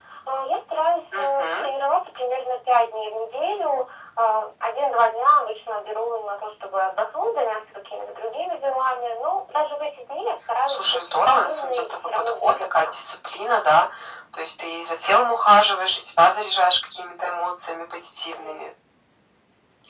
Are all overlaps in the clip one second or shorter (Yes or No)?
No